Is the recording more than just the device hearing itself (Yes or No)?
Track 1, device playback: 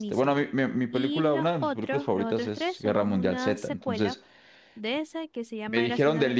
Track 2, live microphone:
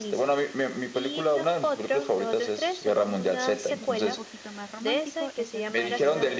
Yes